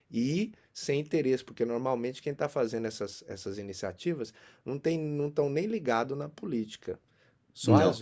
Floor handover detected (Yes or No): No